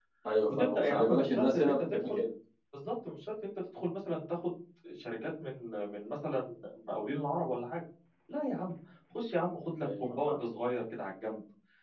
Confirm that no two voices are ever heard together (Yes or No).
No